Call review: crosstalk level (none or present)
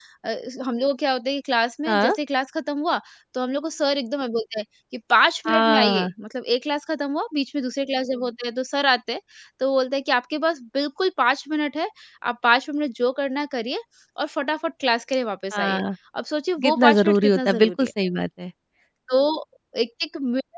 present